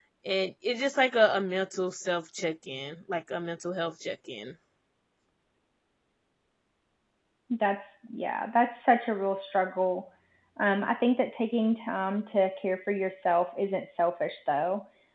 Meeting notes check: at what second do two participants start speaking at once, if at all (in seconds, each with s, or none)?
none